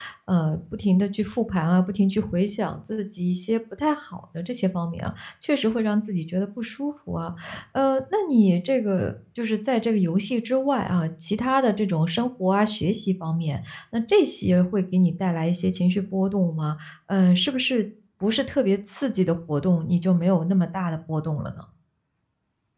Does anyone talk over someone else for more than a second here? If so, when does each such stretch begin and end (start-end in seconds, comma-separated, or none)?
none